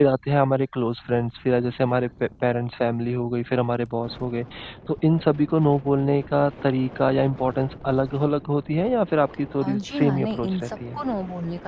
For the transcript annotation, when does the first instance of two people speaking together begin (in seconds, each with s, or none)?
9.6 s